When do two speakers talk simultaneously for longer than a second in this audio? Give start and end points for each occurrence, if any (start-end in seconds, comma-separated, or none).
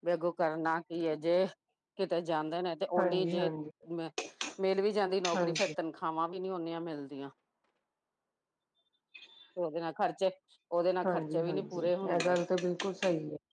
11.0-12.4